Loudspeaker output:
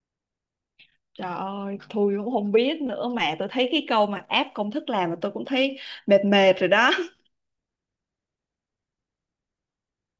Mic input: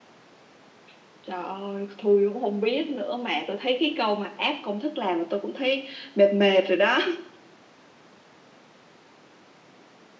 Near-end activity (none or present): none